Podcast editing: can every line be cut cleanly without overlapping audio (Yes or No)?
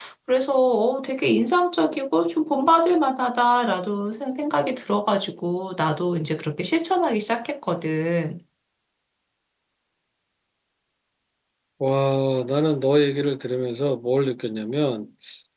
Yes